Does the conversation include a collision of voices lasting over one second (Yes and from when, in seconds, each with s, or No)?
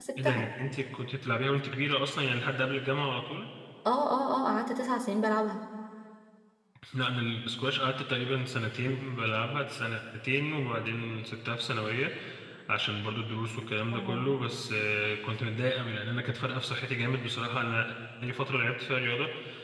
No